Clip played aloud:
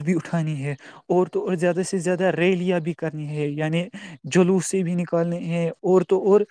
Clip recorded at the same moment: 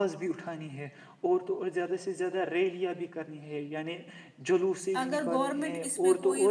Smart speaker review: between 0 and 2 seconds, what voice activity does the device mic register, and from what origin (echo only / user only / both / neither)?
echo only